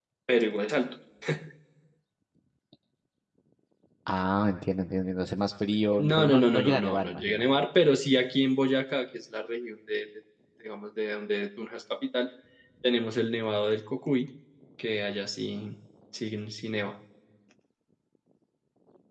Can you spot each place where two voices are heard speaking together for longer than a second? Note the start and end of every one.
6.0-7.4

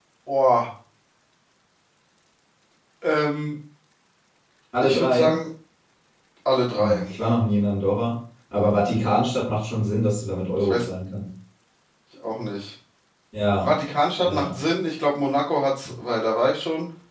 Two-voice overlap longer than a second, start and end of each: none

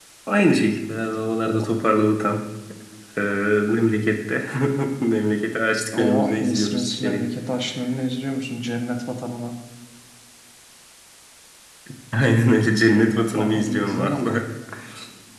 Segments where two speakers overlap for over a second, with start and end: 6.0-7.2, 12.9-14.4

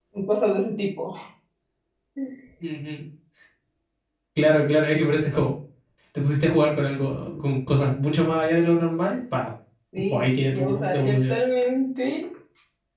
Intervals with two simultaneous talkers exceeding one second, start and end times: 10.1-11.4

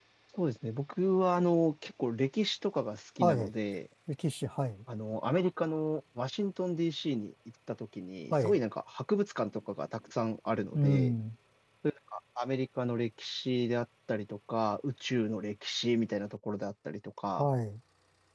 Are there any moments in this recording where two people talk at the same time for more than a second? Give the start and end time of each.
none

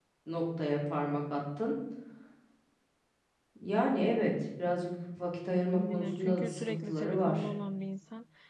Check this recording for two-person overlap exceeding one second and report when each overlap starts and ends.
5.8-7.5

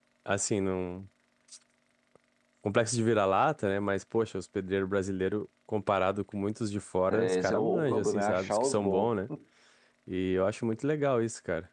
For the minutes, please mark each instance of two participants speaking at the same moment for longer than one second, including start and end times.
7.1-9.1

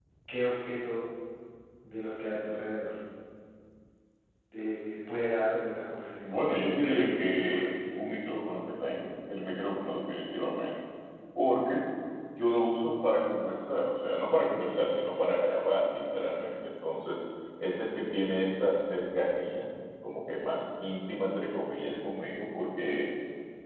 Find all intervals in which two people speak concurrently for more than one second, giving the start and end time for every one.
6.2-7.7

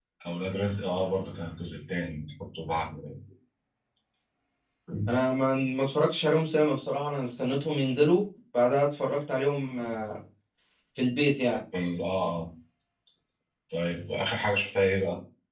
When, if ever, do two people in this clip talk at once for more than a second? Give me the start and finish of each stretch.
none

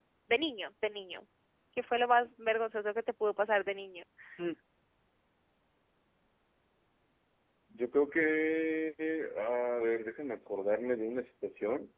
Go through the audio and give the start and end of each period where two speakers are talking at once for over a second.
none

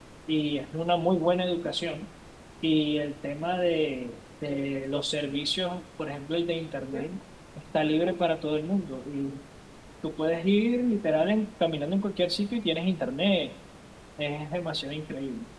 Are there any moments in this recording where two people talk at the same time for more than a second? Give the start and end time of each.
none

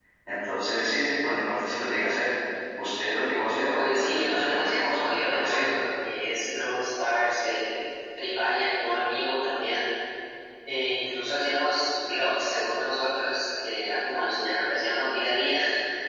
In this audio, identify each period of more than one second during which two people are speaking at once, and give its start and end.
3.8-5.8

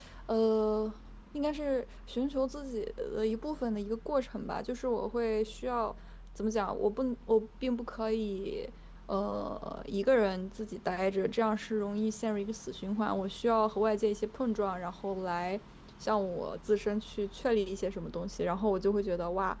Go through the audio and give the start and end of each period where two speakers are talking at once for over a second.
none

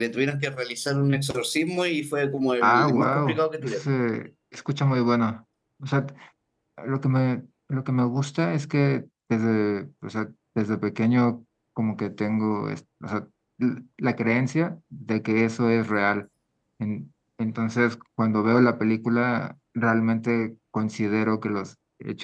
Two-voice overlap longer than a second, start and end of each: 2.6-3.8

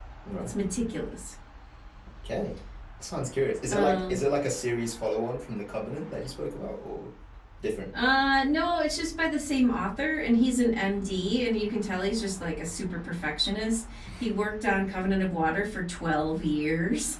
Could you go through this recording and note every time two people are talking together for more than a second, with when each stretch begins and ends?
none

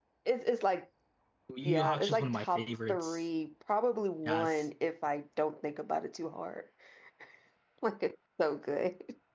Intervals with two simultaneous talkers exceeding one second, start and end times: 1.6-3.2

